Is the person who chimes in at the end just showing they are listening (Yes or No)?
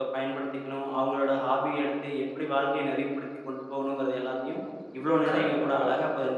Yes